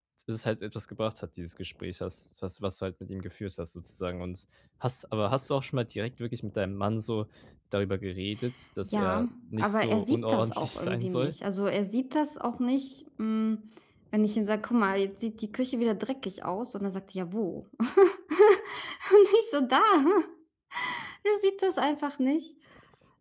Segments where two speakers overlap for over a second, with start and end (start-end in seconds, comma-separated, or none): 8.8-11.3